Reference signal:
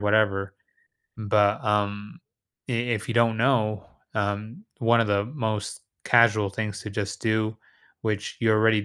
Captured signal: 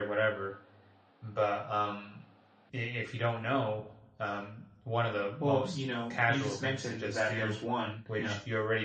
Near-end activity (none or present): present